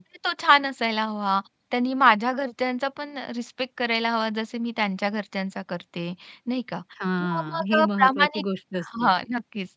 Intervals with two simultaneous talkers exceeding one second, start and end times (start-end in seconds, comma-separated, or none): 7.2-8.4